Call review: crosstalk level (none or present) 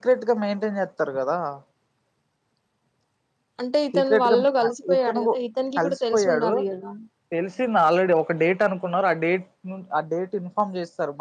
present